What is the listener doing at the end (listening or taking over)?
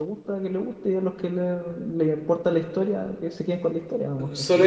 taking over